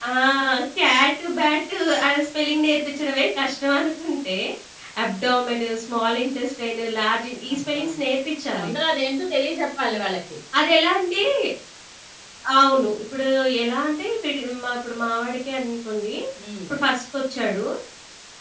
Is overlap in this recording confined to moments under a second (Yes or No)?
Yes